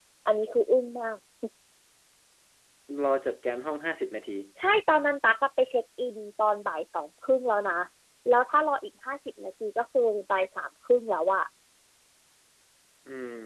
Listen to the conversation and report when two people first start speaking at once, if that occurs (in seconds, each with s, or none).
none